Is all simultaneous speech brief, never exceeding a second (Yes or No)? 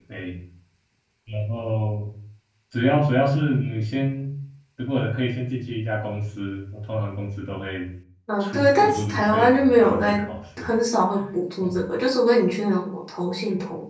No